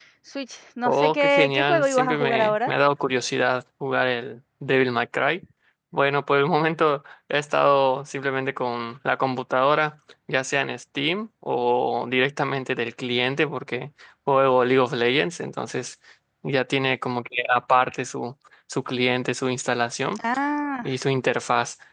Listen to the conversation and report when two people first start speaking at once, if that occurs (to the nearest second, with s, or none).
1 s